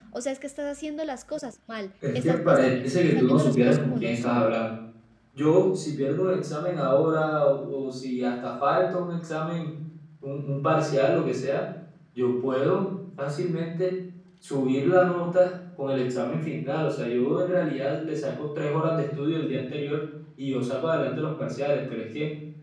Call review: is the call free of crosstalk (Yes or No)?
No